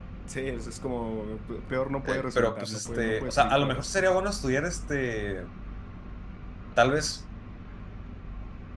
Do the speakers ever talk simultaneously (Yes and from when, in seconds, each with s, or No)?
Yes, from 2.0 s